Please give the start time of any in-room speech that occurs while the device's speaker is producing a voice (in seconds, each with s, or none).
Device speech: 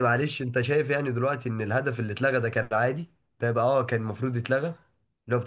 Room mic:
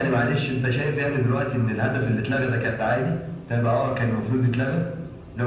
none